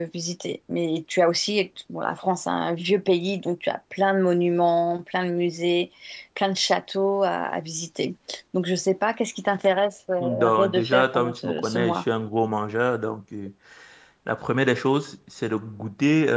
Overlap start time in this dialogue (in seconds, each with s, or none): 10.2 s